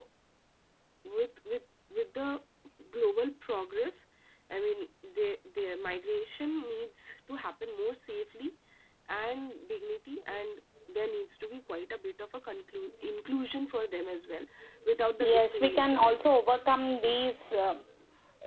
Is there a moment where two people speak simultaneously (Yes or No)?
Yes